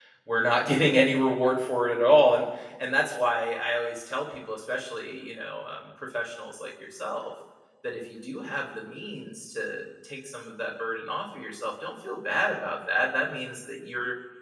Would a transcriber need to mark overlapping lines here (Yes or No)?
No